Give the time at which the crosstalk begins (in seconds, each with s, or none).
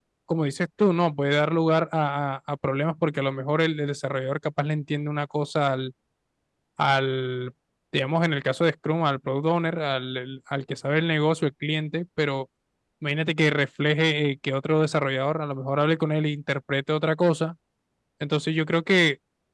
none